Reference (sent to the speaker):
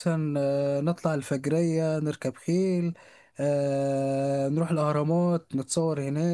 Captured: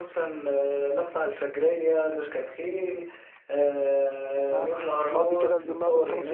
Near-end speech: present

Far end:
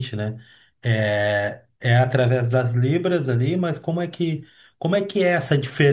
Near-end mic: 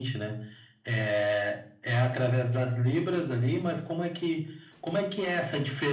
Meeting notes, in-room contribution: none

